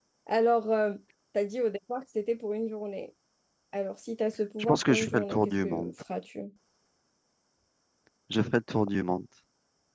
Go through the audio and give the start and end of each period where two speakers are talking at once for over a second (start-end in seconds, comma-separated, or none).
4.6-5.9